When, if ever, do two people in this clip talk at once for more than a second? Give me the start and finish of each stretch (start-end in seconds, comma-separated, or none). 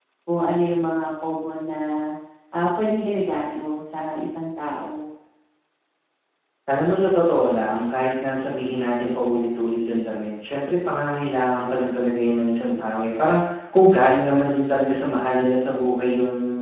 none